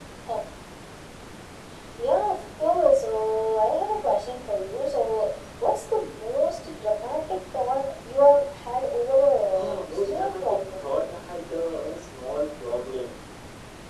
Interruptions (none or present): present